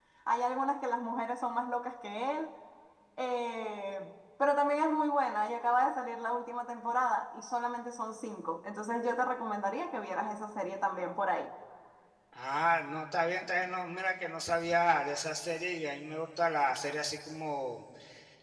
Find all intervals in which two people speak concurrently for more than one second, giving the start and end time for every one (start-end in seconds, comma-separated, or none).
none